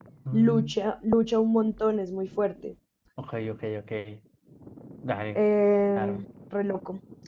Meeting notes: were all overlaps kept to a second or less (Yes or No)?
Yes